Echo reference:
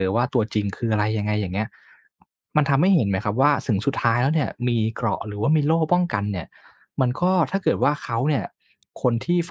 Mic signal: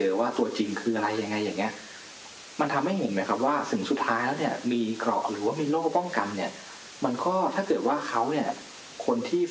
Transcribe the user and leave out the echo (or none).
none